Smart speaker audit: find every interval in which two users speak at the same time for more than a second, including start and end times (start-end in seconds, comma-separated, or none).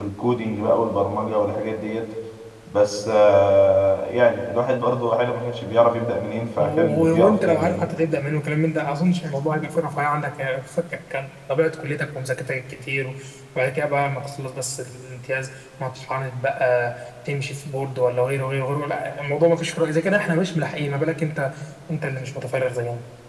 6.6-7.9